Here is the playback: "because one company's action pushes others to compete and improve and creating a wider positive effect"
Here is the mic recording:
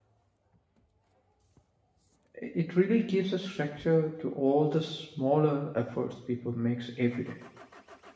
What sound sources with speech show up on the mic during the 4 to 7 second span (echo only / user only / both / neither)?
user only